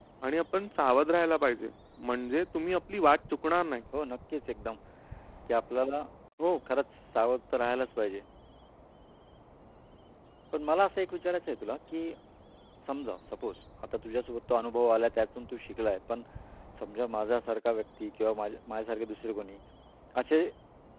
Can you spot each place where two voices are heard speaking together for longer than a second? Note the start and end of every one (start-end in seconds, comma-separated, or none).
none